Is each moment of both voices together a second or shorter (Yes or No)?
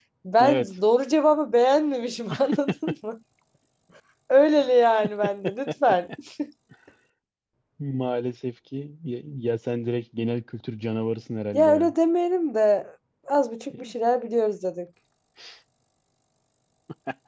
Yes